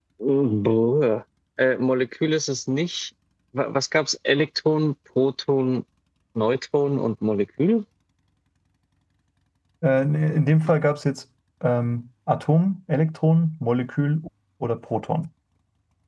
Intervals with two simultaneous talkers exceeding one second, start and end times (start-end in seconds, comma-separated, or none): none